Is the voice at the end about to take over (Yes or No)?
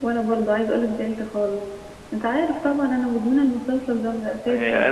Yes